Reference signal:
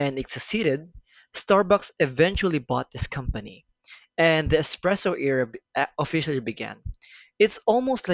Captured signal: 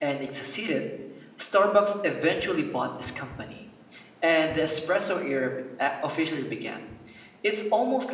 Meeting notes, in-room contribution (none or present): none